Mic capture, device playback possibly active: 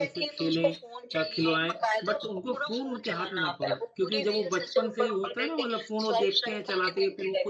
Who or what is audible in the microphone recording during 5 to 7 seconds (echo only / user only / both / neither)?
both